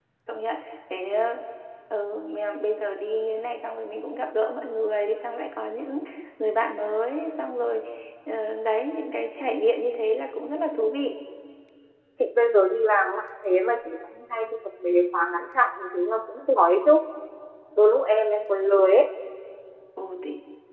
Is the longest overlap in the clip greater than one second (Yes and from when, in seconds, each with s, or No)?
No